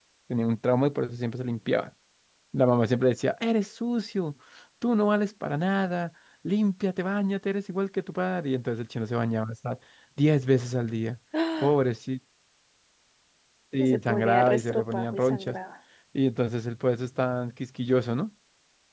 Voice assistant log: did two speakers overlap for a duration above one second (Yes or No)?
Yes